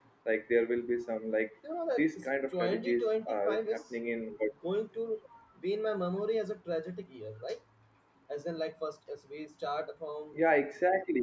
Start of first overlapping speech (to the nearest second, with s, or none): 2 s